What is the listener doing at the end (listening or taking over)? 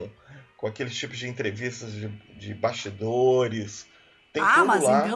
taking over